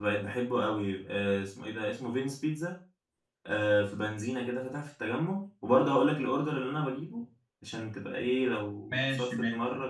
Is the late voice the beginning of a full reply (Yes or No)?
No